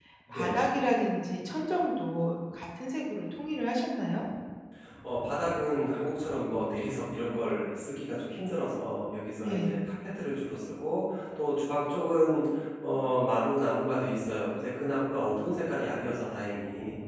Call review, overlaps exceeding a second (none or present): none